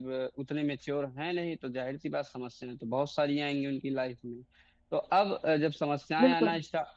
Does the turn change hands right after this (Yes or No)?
No